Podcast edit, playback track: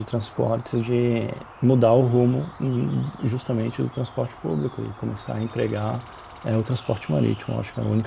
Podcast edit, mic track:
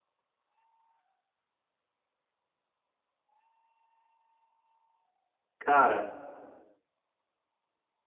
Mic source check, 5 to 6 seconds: user only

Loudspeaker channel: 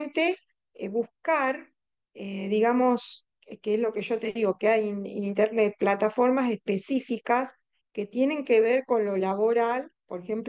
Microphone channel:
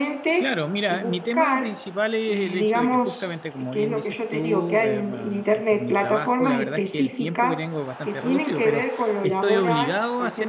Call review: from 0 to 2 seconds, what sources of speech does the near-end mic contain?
both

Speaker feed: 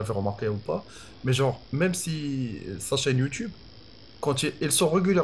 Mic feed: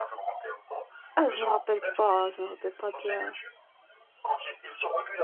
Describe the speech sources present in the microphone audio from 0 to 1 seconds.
echo only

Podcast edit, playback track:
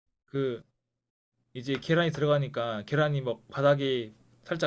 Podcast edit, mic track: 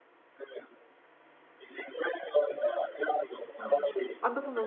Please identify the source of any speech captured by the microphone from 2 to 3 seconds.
echo only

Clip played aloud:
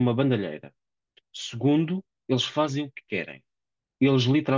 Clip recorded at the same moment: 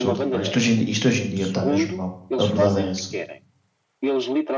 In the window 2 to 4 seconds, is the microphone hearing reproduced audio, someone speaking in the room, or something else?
both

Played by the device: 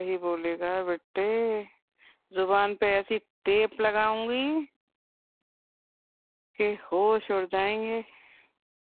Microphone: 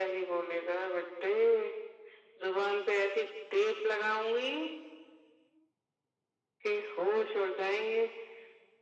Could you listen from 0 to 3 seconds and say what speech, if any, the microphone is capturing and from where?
echo only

